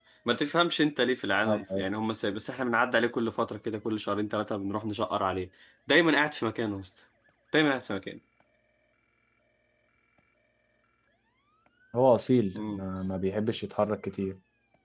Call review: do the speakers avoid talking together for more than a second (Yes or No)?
Yes